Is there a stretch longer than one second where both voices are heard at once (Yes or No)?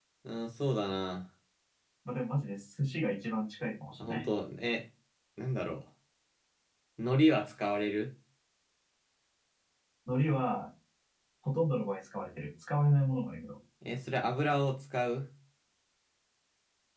No